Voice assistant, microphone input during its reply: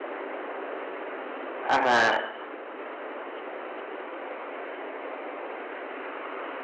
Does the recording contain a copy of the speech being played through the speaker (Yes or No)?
No